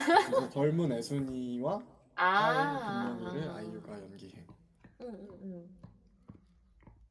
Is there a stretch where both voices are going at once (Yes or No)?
Yes